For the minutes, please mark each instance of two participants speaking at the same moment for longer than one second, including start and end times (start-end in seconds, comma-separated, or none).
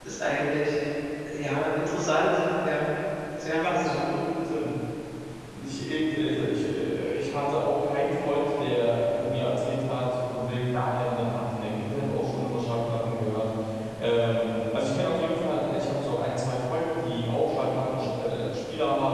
none